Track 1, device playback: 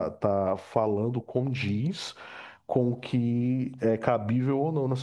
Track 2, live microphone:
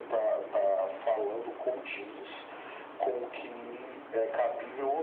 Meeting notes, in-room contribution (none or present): none